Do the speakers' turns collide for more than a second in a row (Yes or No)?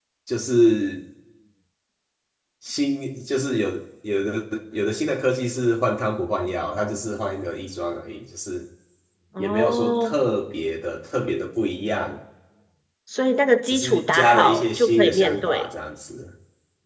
Yes